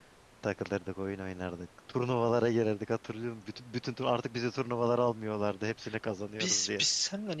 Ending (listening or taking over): taking over